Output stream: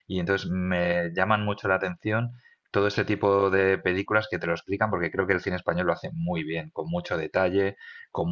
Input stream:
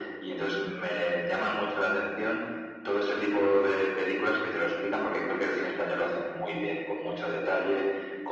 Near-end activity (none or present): none